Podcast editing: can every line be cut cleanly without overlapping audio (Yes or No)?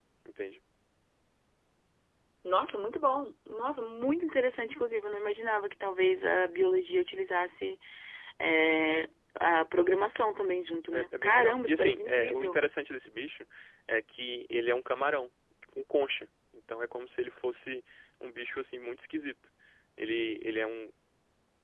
No